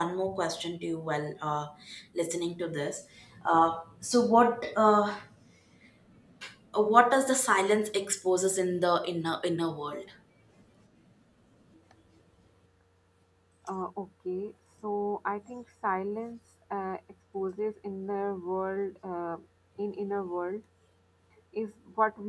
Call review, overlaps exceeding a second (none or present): none